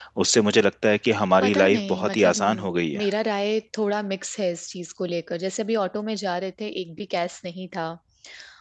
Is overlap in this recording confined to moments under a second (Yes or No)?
No